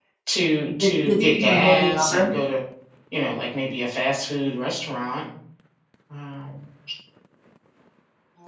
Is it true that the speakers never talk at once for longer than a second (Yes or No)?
No